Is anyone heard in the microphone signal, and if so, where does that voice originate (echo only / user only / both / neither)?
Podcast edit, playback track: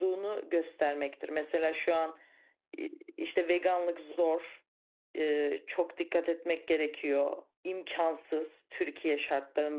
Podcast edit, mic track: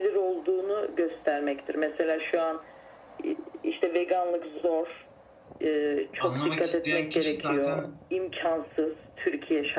both